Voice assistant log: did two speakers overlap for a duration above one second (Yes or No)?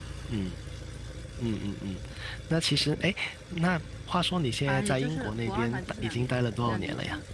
Yes